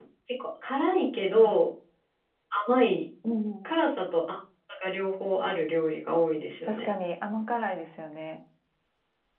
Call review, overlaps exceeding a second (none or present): none